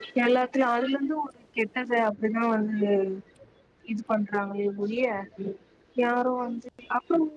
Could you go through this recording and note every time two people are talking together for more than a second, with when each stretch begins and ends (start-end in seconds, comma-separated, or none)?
none